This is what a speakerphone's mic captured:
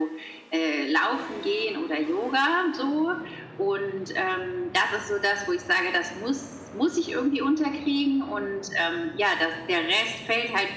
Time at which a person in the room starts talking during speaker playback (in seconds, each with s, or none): none